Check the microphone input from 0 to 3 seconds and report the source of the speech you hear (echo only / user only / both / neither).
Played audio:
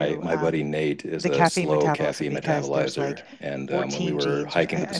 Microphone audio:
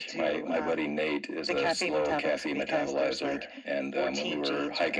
echo only